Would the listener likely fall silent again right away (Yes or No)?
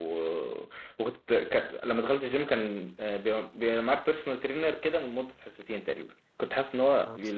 Yes